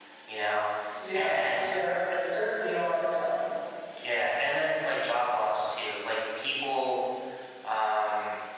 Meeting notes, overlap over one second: none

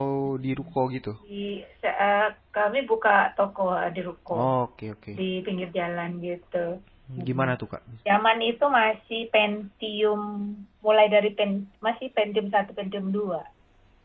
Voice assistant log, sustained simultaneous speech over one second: none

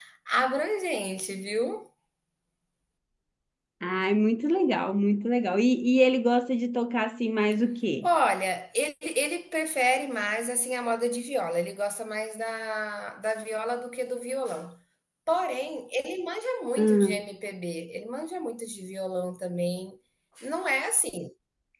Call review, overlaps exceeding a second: none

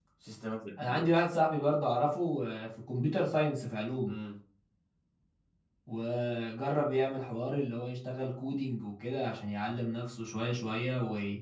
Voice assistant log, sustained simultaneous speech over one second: none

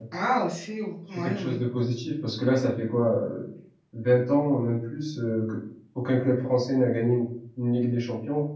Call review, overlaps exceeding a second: none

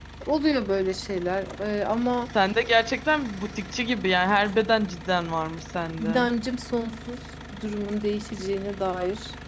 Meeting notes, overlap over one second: none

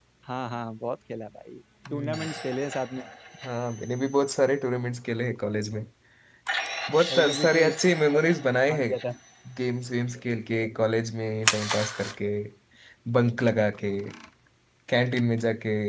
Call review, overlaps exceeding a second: present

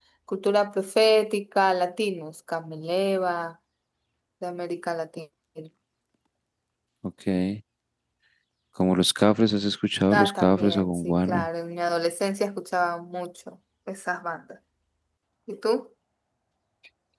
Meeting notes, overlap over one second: present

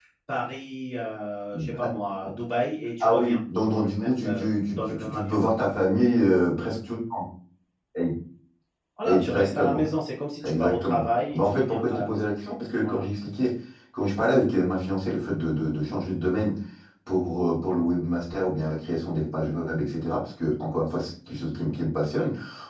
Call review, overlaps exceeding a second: present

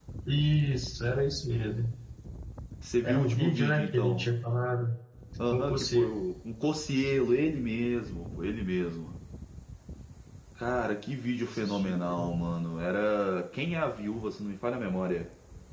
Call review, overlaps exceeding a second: present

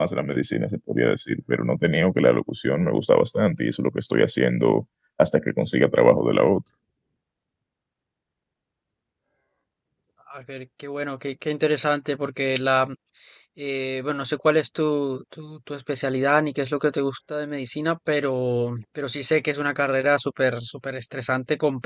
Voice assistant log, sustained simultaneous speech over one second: none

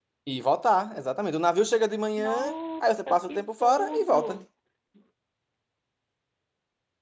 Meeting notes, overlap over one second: present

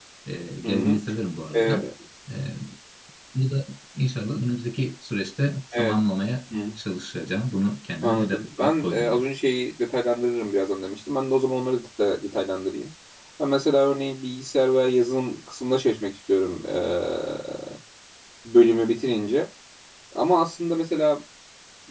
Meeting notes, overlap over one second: present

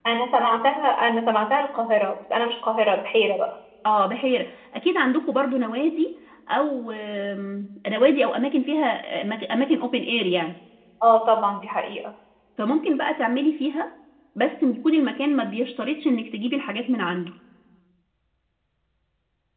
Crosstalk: none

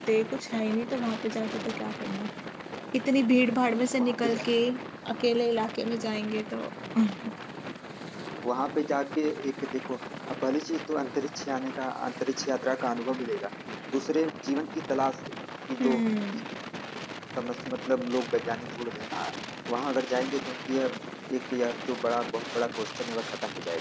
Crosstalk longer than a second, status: none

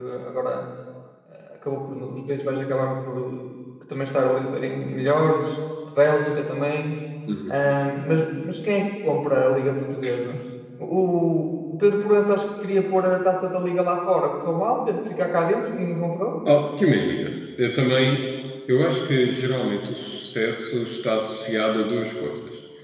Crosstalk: none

